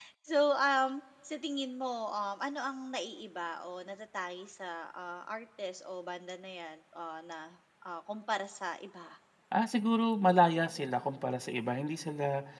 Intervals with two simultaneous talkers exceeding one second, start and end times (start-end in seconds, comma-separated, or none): none